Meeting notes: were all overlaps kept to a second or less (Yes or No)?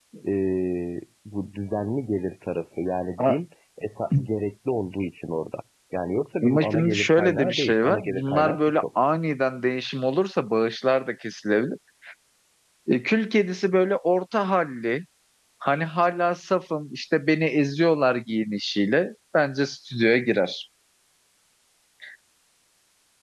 No